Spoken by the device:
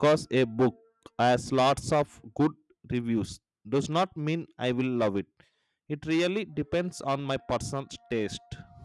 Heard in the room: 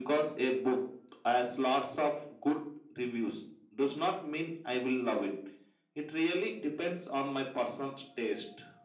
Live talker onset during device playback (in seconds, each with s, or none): none